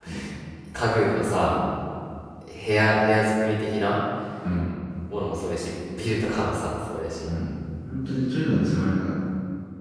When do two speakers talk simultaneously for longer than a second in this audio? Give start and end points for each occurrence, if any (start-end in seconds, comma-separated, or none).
none